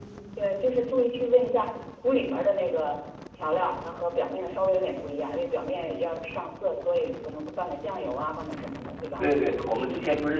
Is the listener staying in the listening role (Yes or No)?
No